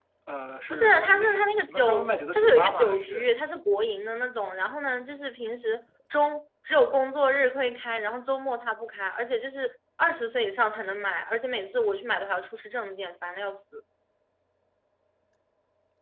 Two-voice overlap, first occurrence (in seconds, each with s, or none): 0.7 s